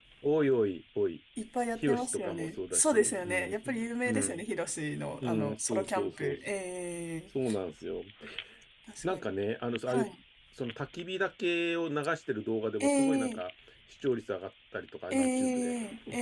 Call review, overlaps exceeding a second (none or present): present